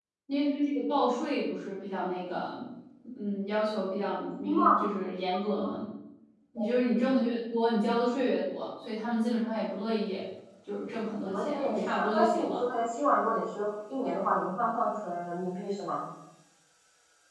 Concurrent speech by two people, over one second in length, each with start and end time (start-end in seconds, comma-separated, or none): 11.2-12.6